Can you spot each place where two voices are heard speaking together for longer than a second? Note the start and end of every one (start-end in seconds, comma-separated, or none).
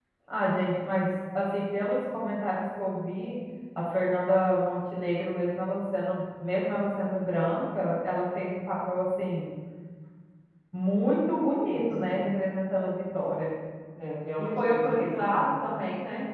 14.4-15.7